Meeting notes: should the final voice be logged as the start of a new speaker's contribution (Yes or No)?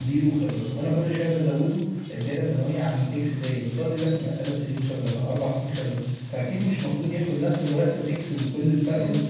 Yes